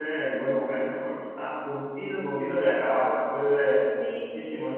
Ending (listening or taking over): taking over